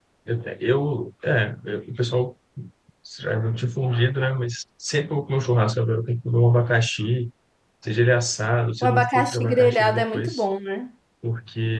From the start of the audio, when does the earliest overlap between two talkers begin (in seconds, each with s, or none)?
8.8 s